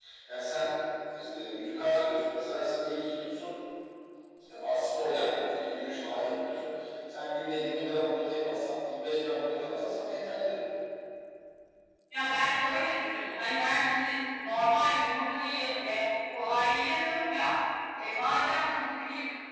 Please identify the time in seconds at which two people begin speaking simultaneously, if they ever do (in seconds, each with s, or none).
none